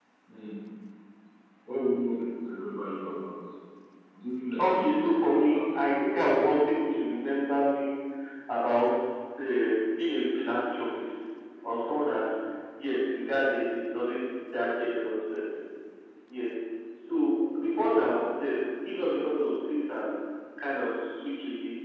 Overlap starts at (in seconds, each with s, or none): 4.6 s